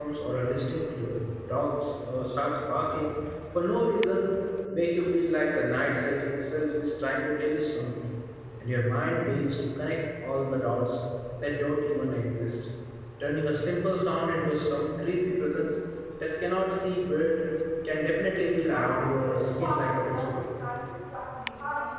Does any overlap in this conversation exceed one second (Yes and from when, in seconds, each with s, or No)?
Yes, from 18.7 s